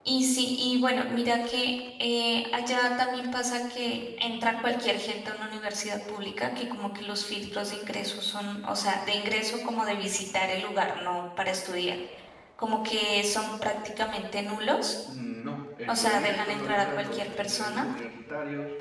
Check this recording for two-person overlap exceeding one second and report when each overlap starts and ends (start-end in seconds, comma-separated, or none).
15.9-17.8